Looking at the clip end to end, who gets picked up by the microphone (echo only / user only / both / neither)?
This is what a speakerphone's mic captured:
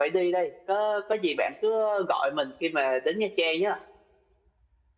echo only